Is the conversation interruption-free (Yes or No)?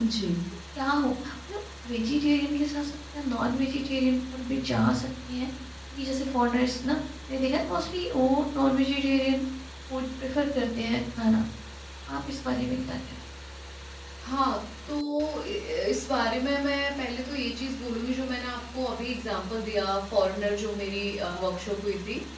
Yes